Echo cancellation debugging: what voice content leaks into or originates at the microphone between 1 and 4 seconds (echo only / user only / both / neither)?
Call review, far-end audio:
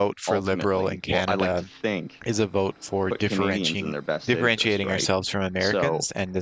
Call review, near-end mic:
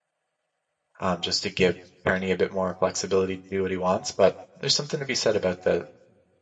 user only